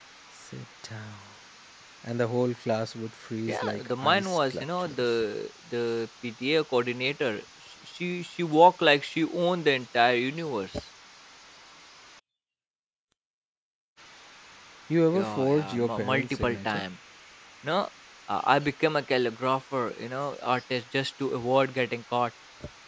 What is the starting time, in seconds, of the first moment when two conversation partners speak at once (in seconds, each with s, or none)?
3.5 s